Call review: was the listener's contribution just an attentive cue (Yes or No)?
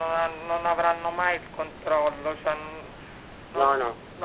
Yes